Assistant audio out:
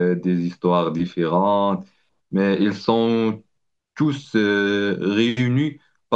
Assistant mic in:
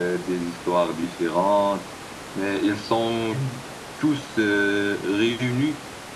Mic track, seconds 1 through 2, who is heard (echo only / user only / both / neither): echo only